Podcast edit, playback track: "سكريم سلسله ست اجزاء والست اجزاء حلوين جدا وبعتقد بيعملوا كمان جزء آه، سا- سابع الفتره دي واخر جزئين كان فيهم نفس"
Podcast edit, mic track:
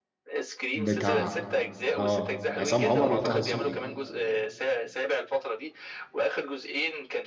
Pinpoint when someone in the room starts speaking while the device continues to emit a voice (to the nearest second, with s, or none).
1 s